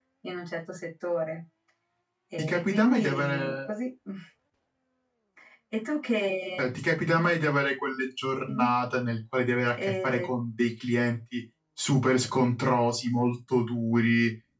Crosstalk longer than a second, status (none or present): present